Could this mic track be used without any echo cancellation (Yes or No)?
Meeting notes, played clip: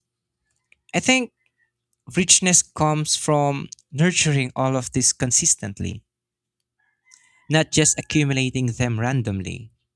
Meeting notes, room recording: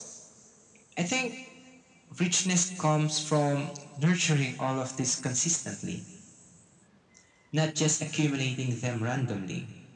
No